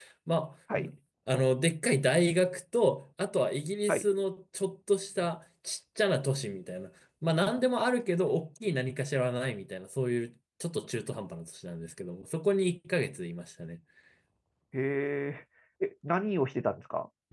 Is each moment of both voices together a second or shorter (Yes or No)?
Yes